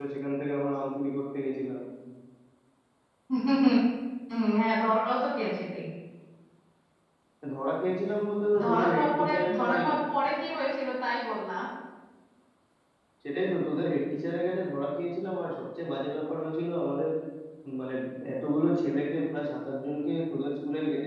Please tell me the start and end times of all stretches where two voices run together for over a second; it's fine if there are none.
8.6-9.9

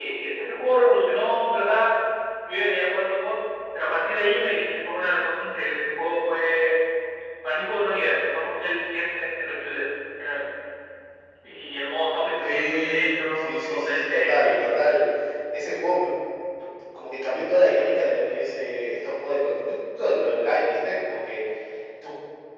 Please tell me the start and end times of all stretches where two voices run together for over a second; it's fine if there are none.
12.4-14.5

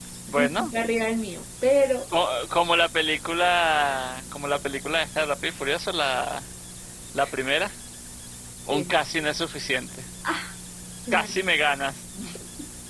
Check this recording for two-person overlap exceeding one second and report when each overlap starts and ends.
none

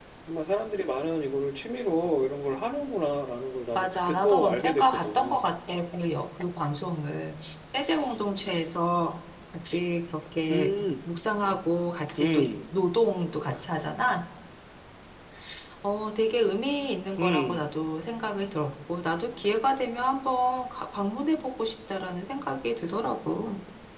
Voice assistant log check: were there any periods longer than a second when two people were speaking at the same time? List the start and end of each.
3.8-5.3

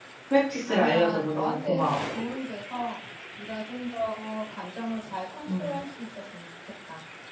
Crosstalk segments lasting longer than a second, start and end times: 0.7-2.0

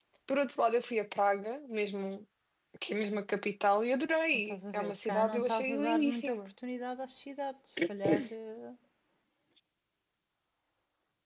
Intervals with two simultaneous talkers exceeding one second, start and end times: 4.3-6.5

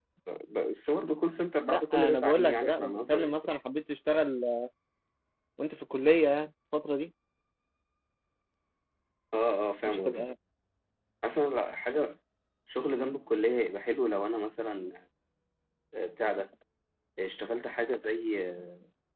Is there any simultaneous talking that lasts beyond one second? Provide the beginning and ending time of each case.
1.7-3.5

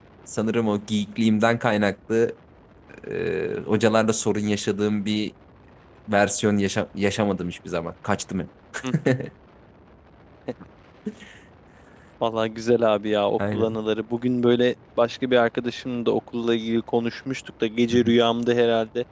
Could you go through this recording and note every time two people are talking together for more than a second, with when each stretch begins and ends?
none

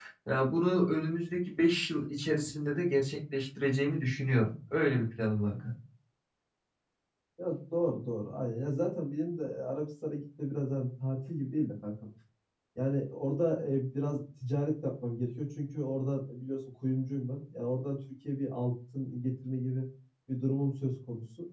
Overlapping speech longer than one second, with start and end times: none

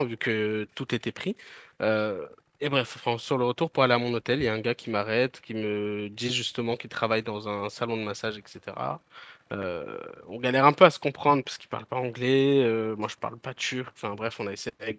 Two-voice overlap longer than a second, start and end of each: none

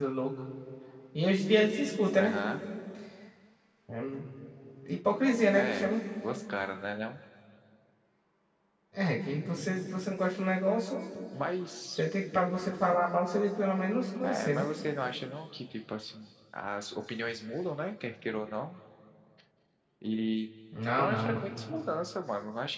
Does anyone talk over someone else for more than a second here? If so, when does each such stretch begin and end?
none

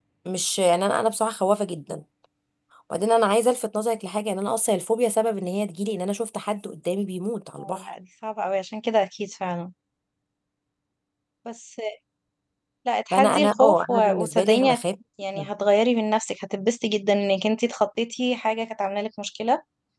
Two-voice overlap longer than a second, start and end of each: 13.1-14.8

